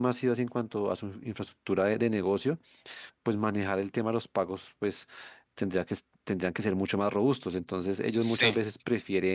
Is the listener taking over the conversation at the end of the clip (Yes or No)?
No